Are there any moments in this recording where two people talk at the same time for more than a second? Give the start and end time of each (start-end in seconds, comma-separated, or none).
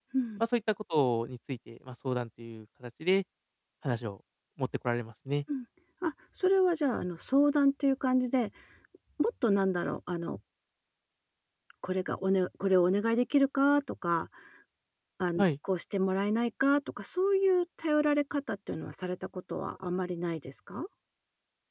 none